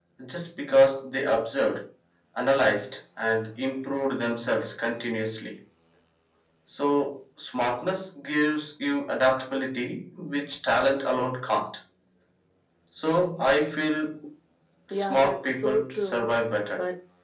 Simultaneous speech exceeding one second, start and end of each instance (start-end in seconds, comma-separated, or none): 14.9-16.3